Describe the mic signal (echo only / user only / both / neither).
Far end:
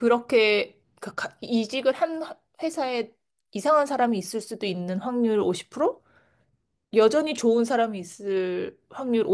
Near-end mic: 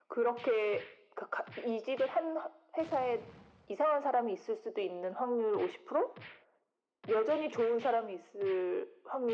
echo only